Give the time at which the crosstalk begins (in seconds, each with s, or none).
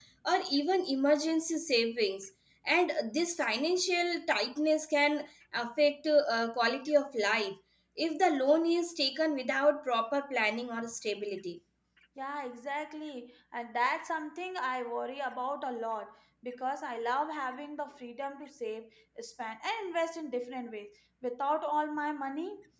none